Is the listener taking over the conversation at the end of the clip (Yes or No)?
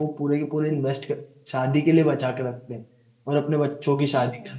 No